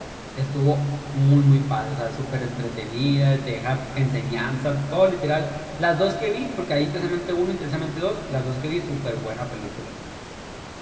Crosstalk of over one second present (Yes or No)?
No